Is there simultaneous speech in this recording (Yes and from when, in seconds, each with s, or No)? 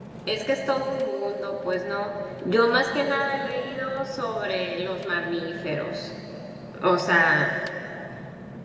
No